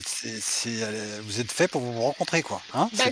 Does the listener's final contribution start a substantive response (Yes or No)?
Yes